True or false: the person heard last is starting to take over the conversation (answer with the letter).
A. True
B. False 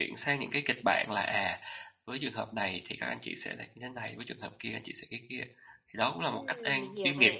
A